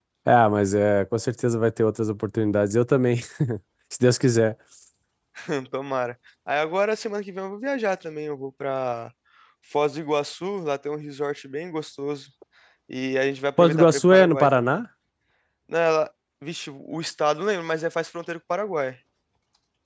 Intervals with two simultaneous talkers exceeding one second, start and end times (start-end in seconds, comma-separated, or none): 13.6-14.8